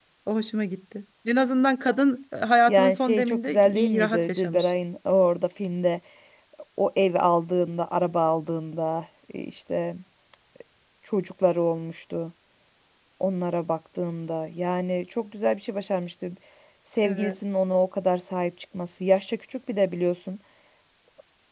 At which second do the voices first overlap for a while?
2.7 s

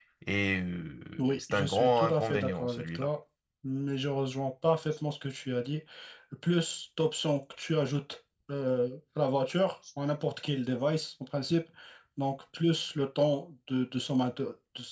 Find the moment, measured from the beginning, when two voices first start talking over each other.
1.4 s

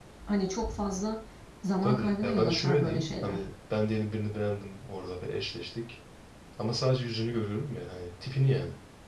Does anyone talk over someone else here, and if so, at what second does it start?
1.8 s

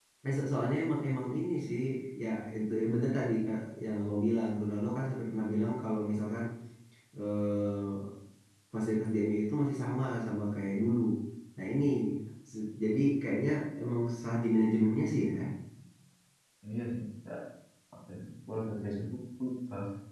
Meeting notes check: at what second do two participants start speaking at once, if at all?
none

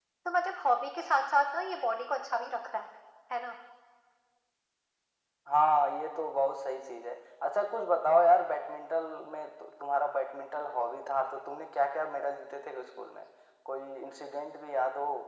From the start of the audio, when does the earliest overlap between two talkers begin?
none

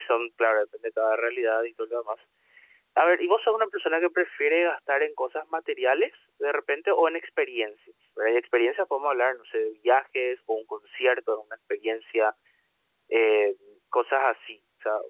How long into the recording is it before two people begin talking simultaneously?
none

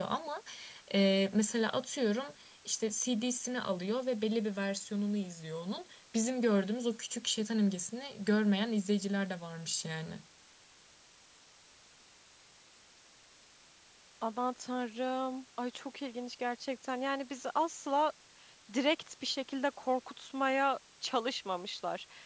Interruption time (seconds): none

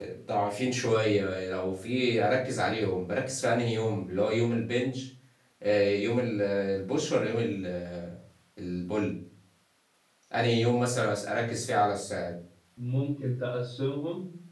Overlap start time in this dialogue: none

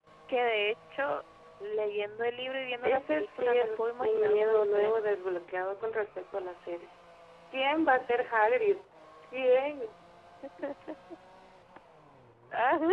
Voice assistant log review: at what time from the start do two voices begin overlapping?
2.8 s

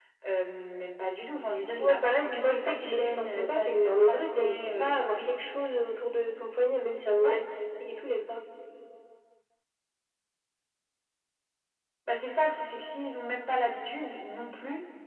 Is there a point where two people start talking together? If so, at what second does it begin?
1.8 s

